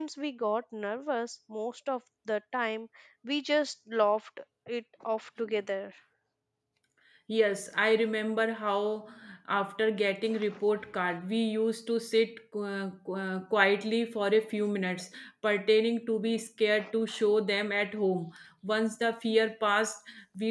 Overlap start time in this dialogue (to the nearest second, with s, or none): none